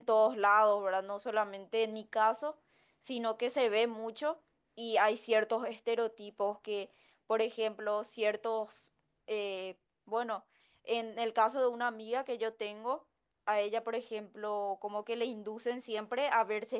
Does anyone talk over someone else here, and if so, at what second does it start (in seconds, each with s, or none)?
none